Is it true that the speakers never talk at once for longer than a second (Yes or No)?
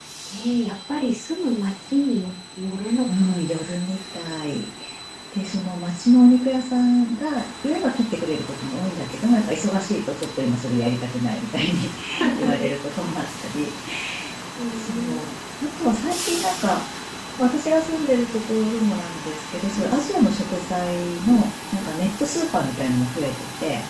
Yes